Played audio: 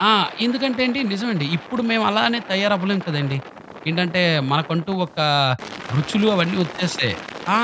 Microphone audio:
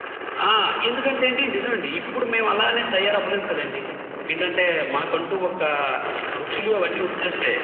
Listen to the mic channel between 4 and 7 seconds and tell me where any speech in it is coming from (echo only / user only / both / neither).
echo only